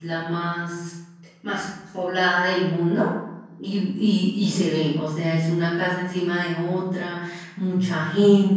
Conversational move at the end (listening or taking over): listening